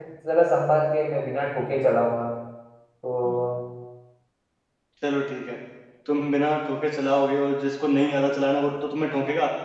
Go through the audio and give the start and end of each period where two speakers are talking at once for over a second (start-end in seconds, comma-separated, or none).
none